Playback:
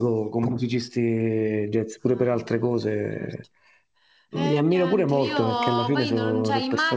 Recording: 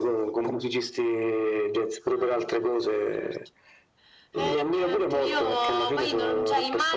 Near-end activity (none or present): none